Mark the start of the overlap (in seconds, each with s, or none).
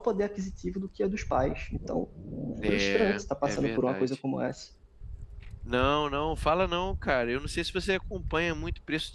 2.7 s